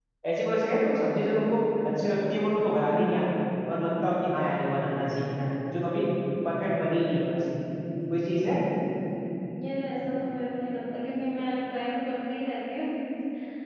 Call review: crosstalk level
none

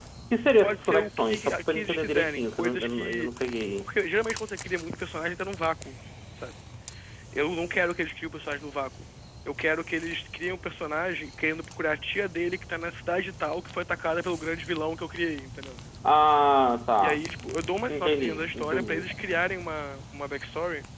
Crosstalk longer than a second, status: present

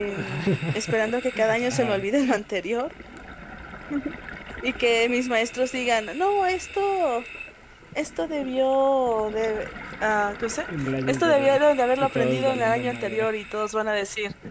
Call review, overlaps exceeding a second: present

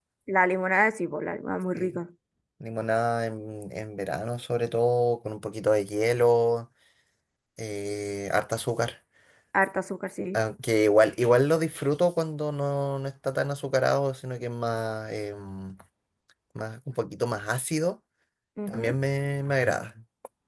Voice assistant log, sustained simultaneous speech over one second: none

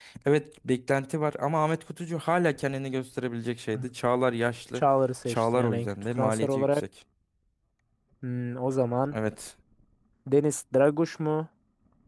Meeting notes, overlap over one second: present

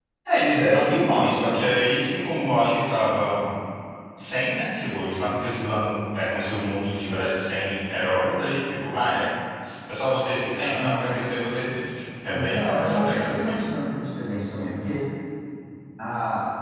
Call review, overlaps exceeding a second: present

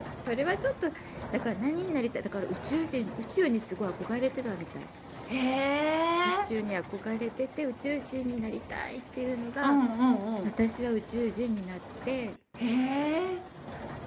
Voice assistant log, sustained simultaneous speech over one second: none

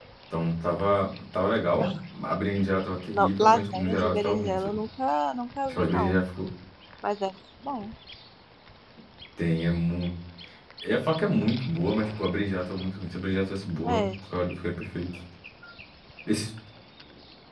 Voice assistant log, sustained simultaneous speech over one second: present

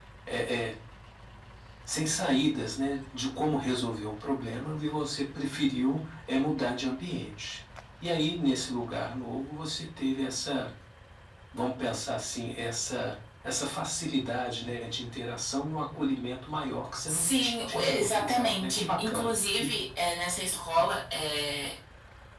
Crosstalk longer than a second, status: present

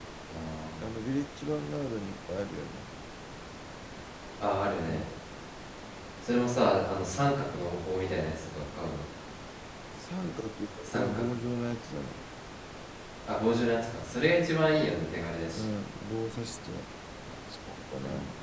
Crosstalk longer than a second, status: none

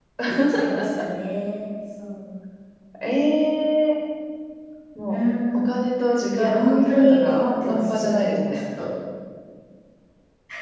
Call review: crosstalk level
present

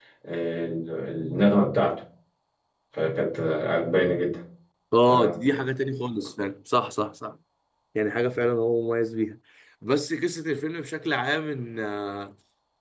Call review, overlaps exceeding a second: none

